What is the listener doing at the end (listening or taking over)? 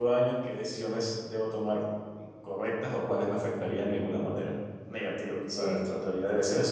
listening